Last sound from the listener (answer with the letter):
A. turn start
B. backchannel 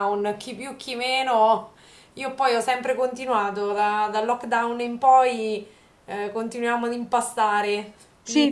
A